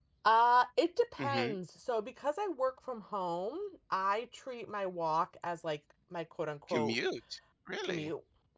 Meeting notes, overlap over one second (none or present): none